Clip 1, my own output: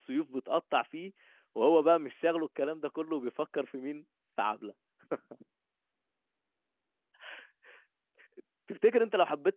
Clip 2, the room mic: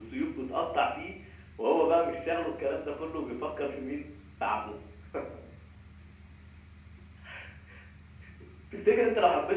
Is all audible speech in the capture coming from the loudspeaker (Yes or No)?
Yes